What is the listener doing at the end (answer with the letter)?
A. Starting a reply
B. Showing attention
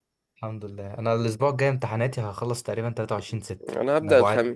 A